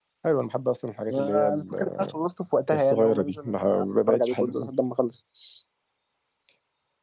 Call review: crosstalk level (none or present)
present